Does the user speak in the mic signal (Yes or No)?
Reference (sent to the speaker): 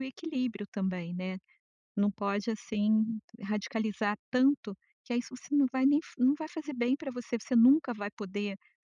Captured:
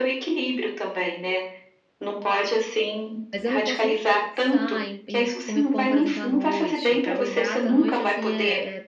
Yes